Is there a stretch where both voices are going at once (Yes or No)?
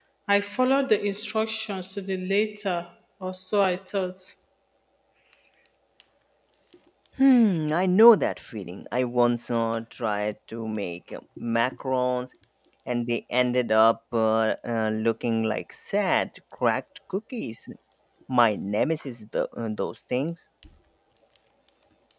No